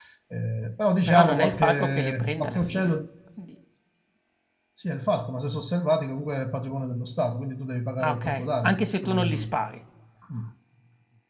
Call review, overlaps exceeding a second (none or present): present